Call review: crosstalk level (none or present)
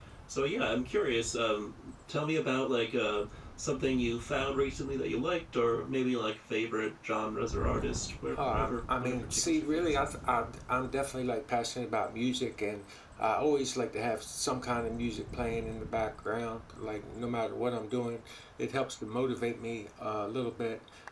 present